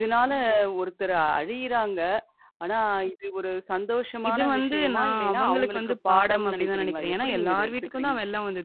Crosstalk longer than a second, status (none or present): present